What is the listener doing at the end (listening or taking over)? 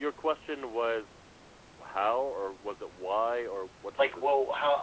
taking over